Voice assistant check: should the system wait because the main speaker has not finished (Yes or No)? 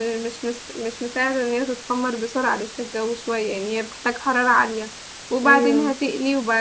Yes